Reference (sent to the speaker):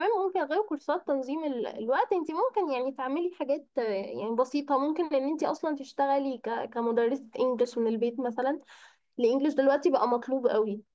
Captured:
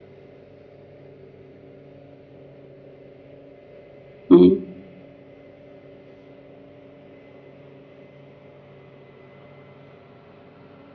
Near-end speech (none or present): present